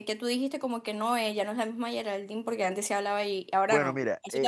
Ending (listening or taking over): taking over